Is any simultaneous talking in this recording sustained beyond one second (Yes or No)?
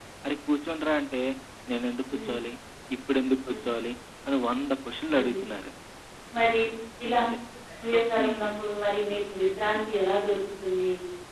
No